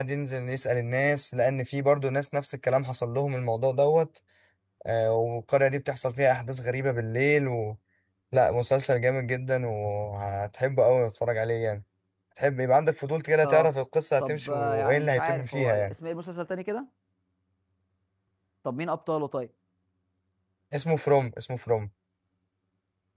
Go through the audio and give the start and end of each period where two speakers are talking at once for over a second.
14.2-15.9

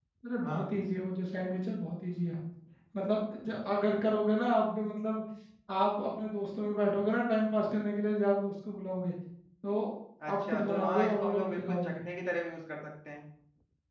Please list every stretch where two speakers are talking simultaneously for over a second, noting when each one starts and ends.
10.3-11.9

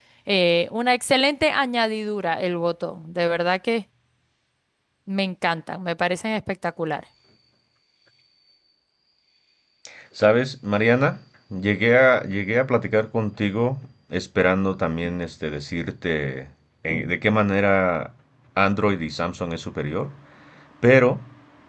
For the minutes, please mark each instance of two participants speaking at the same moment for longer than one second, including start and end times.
none

